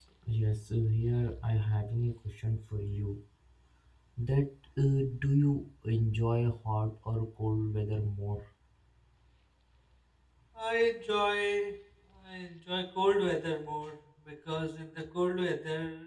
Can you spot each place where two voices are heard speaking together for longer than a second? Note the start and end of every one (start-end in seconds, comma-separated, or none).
none